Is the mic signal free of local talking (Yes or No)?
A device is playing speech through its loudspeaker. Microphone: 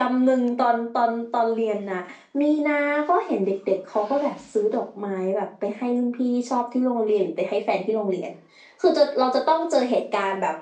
Yes